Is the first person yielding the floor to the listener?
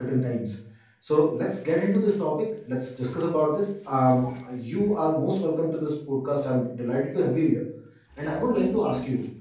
No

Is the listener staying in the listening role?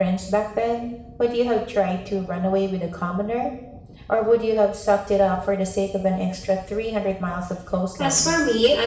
No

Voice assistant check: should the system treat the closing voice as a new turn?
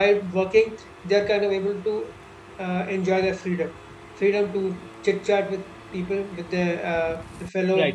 No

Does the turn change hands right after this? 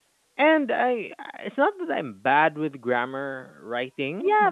Yes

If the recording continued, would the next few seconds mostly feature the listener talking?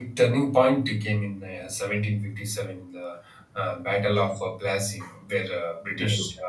No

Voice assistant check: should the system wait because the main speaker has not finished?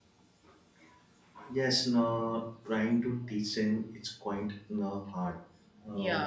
Yes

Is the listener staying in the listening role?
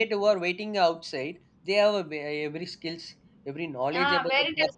No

